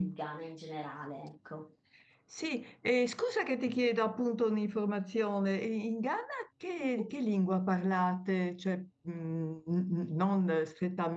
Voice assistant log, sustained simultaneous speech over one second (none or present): none